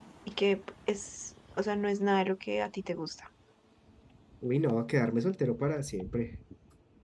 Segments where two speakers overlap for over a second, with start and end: none

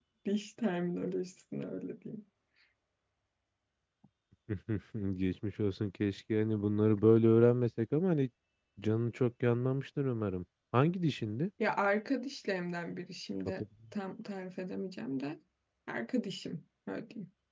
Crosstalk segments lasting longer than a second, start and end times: none

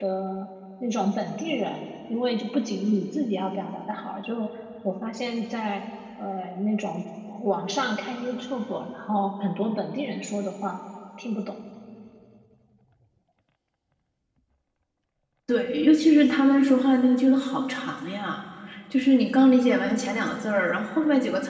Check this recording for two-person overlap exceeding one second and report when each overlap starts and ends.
none

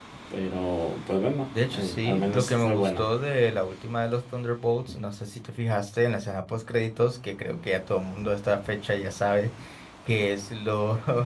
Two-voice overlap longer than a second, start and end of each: 1.7-3.0

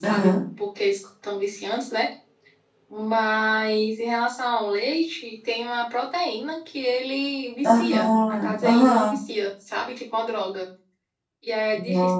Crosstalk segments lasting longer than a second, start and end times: 7.6-9.2

